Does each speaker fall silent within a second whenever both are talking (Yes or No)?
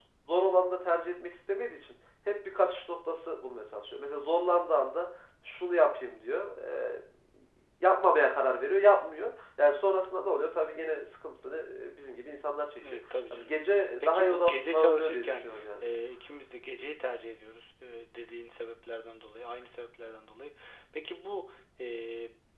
No